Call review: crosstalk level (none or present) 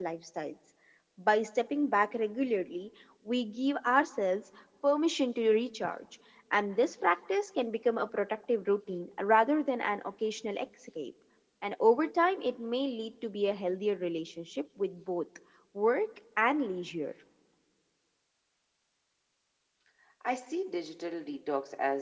none